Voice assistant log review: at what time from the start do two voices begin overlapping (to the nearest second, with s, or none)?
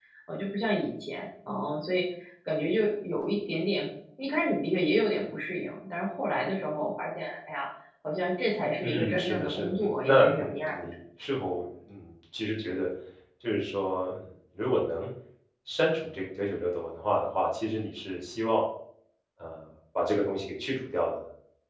9 s